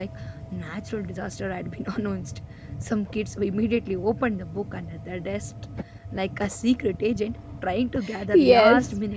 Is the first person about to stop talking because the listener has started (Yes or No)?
Yes